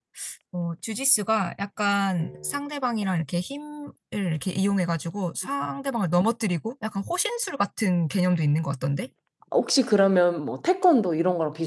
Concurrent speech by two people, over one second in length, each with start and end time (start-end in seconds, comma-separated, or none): none